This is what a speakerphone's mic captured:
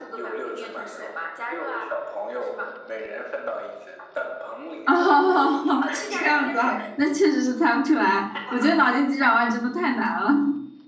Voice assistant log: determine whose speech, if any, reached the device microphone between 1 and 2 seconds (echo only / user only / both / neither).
echo only